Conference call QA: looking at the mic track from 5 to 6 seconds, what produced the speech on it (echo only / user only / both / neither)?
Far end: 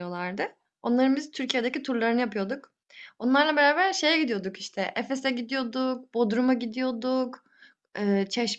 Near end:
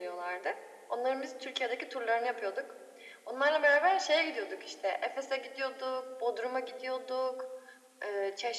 echo only